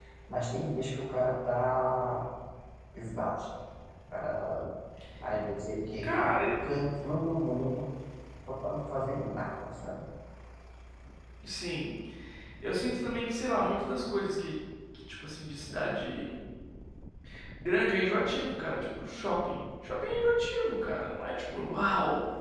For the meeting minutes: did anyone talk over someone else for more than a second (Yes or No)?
No